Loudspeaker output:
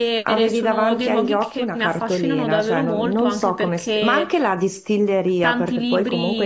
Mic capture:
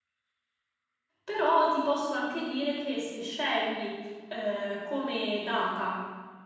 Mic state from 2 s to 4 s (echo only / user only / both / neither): user only